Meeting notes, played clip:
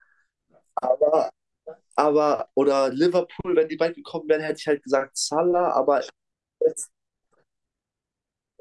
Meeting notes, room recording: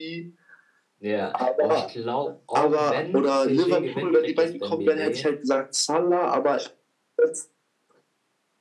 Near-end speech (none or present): present